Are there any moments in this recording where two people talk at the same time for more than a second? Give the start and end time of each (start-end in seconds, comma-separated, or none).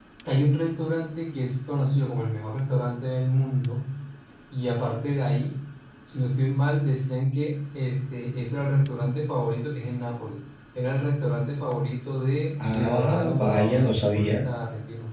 12.6-14.4